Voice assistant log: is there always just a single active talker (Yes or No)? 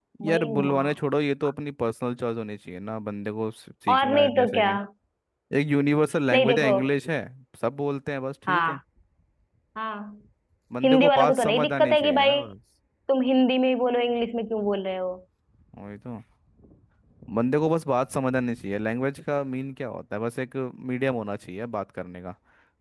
No